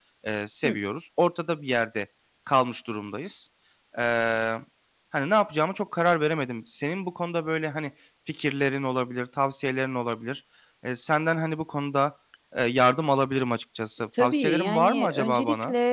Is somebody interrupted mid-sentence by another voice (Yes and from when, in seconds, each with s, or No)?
Yes, from 14.1 s